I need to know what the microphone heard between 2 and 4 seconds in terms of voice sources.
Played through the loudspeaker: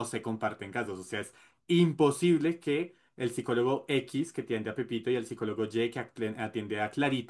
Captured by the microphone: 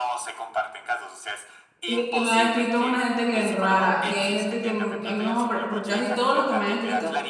both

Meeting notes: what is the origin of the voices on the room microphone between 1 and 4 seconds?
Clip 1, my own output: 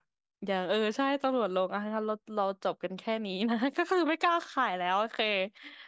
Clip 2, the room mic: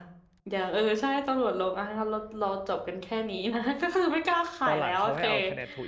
echo only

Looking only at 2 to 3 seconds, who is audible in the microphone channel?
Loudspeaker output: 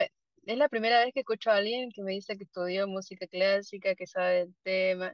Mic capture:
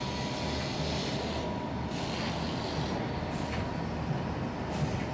neither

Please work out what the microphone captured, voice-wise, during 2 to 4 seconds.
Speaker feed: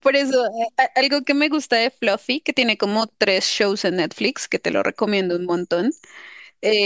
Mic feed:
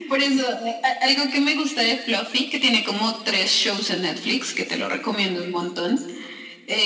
echo only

